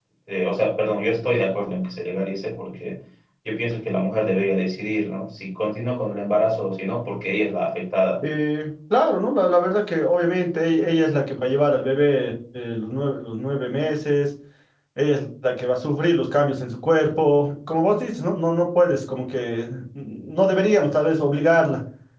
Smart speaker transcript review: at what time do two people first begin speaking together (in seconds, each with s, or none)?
none